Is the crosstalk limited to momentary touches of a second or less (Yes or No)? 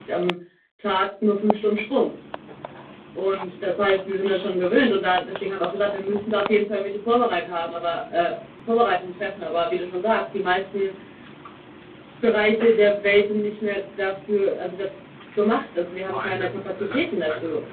No